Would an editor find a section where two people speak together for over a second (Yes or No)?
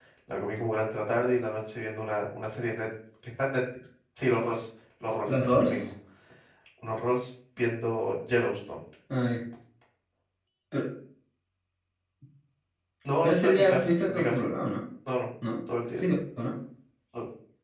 Yes